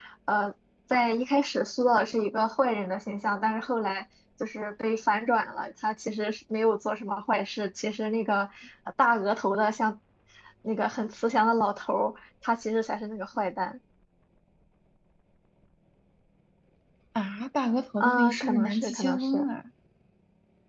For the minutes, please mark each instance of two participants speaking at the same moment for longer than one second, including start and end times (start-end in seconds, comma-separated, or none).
18.0-19.5